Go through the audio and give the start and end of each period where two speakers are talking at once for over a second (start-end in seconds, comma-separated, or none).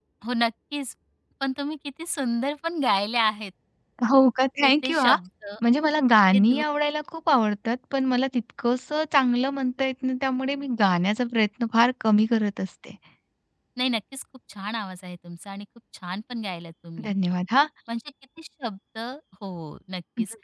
none